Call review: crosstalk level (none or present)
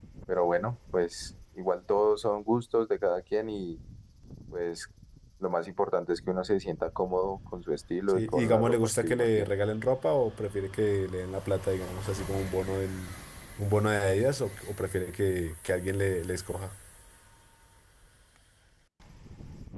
present